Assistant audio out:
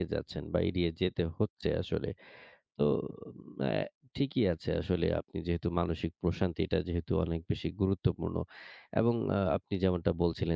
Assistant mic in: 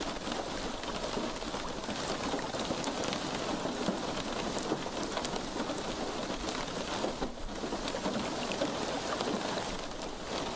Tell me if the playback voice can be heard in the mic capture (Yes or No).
No